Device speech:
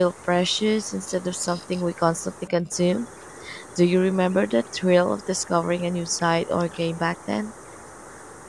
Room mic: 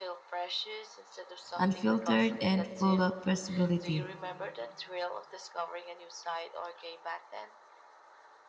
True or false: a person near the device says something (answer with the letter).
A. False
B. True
B